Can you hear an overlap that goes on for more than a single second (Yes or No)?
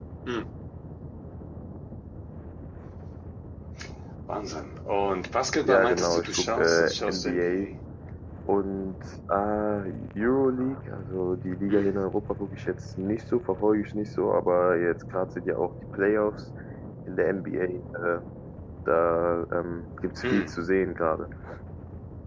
Yes